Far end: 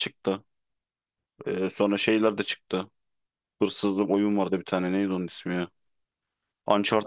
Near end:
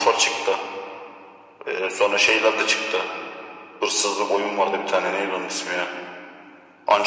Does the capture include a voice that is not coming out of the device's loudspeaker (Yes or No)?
No